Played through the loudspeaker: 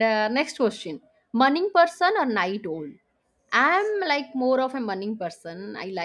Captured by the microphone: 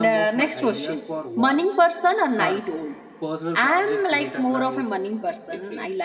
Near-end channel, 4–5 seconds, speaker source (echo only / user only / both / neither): both